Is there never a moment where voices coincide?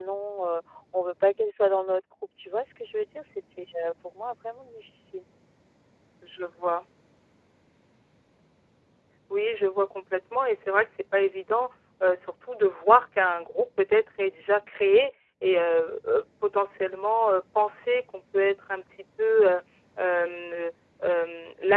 Yes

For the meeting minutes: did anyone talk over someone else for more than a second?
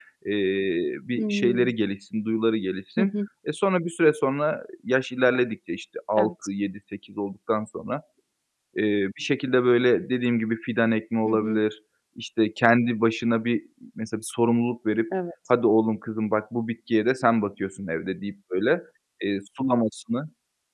No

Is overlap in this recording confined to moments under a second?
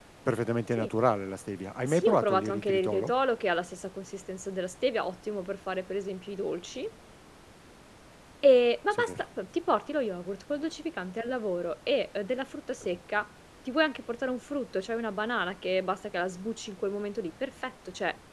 No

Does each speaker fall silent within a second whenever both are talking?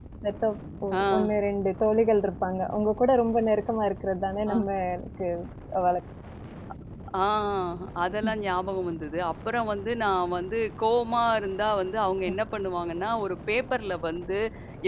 Yes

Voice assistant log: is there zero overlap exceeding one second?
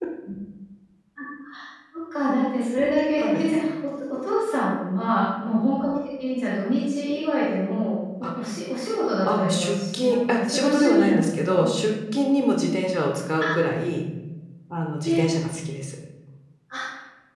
No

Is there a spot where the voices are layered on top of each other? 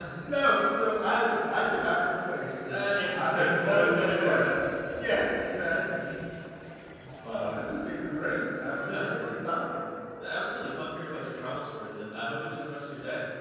Yes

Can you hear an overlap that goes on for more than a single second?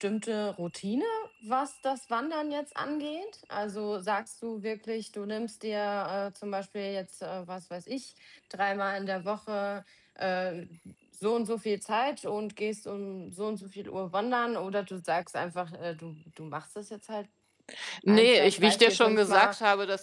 Yes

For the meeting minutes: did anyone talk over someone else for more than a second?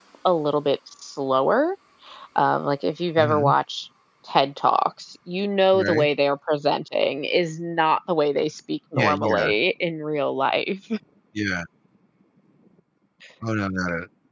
No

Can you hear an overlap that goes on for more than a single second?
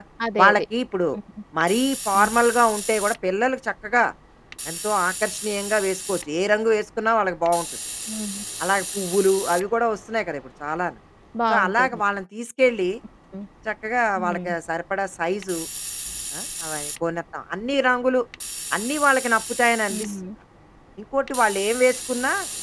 No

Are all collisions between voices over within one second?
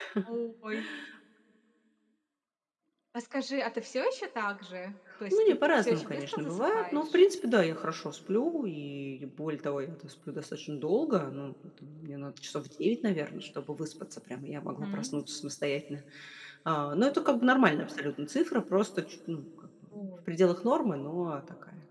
No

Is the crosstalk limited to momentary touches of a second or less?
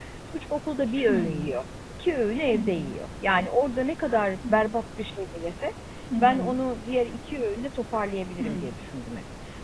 Yes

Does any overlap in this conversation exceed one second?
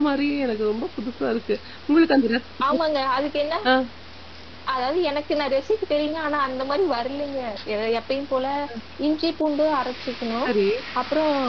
No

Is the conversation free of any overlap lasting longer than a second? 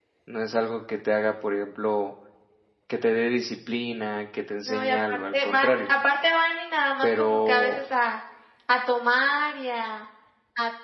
No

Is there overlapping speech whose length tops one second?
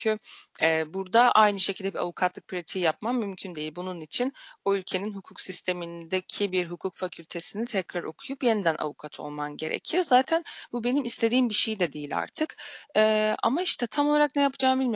No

